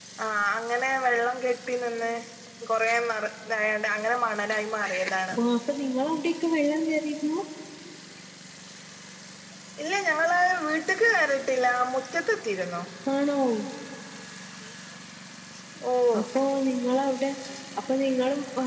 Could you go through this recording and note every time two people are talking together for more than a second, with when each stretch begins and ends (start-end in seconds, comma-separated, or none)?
none